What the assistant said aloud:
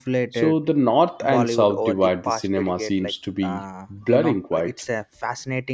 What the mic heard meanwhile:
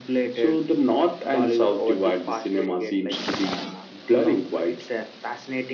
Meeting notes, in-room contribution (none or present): none